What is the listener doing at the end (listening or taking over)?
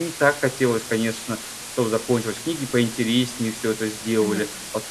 taking over